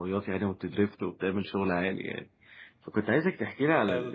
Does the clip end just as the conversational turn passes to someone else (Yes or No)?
No